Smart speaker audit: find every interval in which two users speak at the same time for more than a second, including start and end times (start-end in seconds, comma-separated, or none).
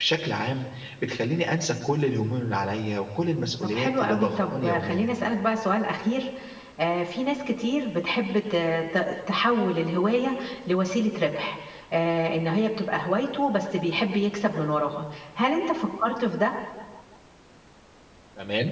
3.6-5.1